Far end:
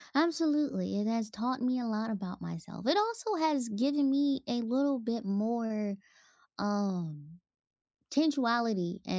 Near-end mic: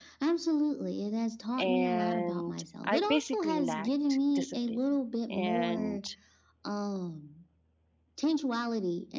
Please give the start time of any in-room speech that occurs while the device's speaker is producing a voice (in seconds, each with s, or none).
1.6 s